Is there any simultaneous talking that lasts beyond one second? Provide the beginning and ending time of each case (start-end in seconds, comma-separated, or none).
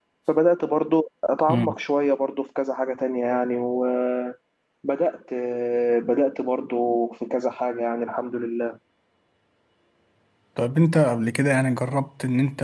none